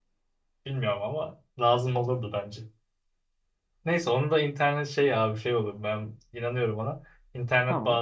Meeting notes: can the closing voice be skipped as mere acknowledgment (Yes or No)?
Yes